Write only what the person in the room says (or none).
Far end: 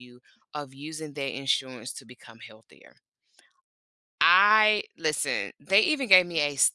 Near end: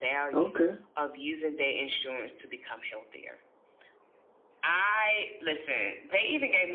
Okay.